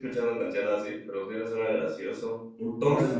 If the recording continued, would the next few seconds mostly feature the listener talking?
No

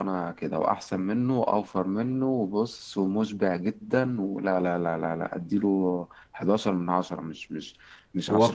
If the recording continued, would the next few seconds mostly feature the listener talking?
Yes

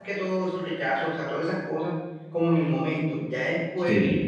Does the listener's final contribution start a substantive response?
No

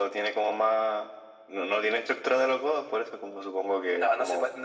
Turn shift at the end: Yes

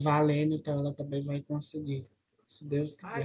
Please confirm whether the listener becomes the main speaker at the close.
Yes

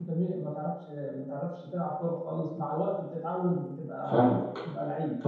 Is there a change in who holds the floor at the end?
Yes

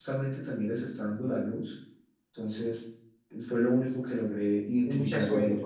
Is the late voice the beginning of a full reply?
Yes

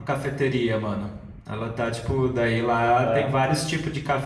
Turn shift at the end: No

